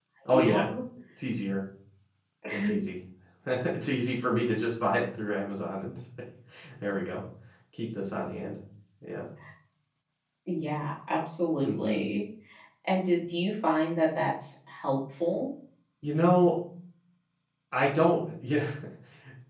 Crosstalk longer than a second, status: none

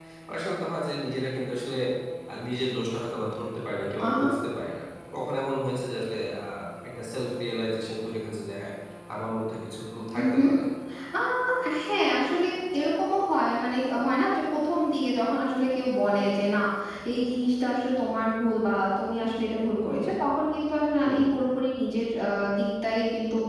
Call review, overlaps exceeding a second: none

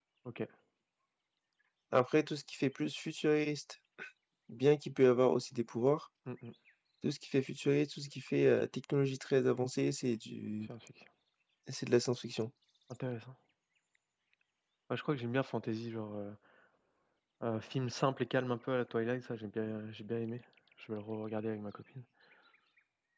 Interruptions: none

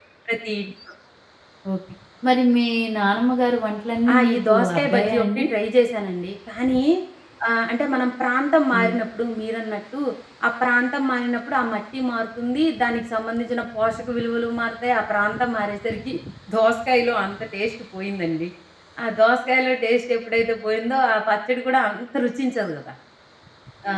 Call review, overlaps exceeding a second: present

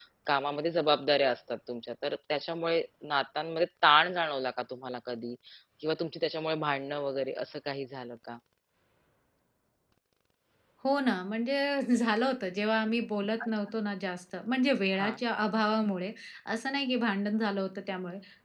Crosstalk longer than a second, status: none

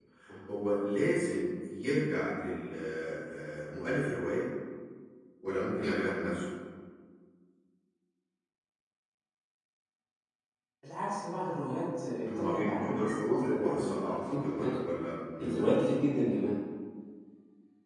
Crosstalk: present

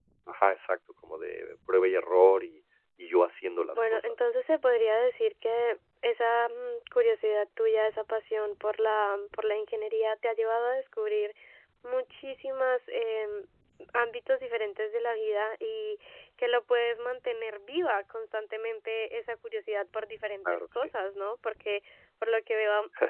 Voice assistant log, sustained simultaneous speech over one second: none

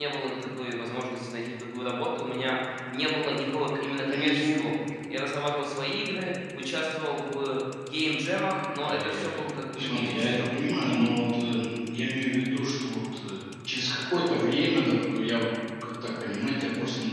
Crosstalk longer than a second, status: present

